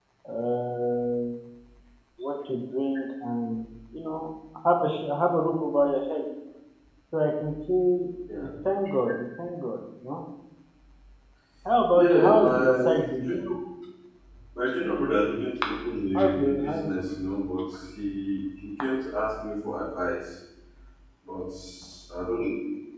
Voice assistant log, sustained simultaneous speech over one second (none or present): present